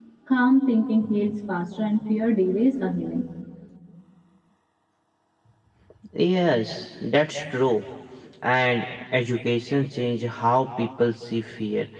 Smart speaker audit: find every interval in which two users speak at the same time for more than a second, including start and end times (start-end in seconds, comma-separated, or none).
none